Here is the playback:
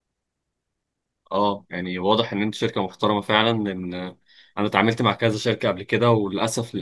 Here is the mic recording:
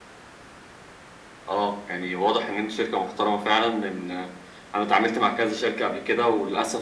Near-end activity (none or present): none